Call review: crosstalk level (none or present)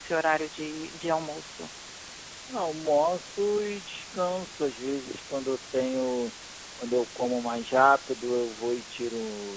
none